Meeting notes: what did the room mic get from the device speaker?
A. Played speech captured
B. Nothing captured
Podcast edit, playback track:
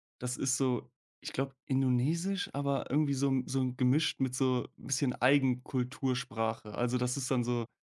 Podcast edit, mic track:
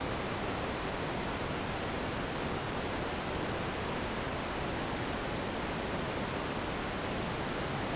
B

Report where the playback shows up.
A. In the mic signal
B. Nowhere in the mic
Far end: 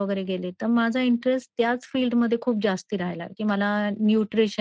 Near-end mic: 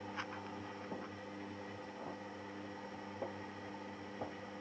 B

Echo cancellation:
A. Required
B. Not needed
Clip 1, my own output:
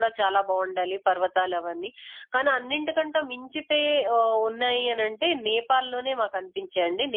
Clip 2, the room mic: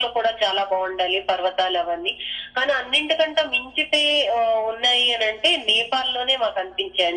A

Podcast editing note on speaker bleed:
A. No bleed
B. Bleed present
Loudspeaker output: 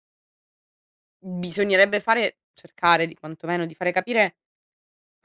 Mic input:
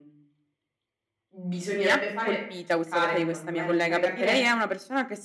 B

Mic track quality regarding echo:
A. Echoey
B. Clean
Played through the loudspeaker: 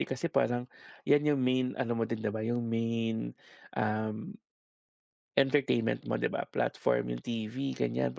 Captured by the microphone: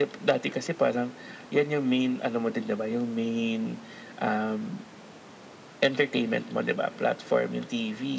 A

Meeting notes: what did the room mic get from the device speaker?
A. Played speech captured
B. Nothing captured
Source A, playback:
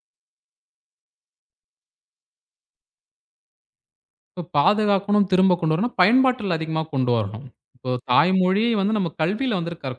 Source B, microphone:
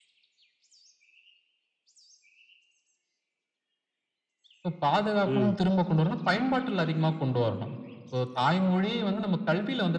A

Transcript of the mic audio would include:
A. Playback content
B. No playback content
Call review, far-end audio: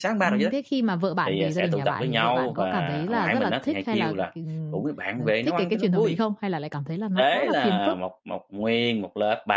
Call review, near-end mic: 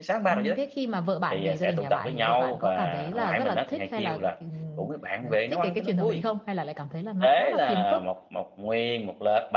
A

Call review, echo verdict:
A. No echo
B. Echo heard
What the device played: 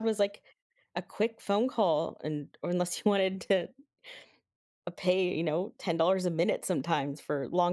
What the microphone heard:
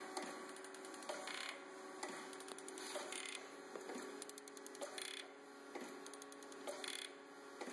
A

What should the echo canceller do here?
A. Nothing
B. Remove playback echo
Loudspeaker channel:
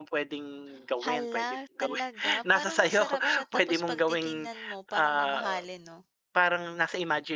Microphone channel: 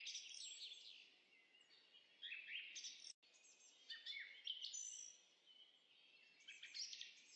A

